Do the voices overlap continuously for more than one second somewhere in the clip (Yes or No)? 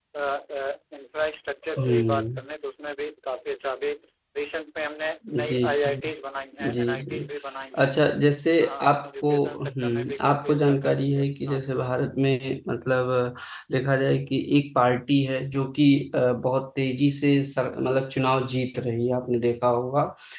Yes